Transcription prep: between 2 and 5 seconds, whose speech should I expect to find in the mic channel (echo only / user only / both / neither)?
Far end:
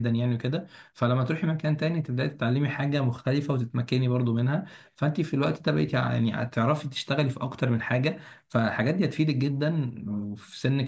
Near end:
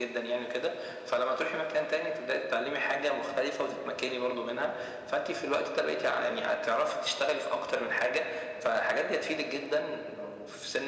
echo only